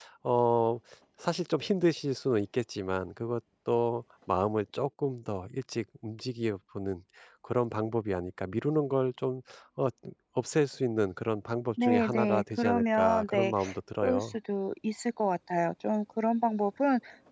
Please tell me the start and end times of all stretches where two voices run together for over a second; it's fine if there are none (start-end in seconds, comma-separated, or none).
11.8-13.5